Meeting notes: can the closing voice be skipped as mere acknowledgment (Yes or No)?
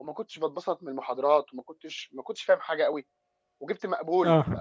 Yes